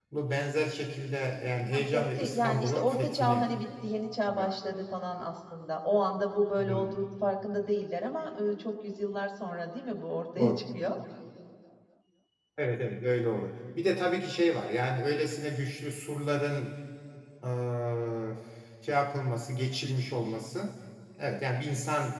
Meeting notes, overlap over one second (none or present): present